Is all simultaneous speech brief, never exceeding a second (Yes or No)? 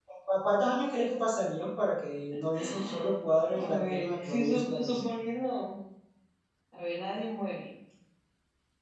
No